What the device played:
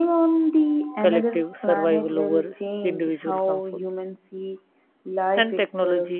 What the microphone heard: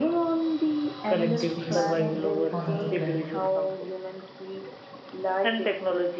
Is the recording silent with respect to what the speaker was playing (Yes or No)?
No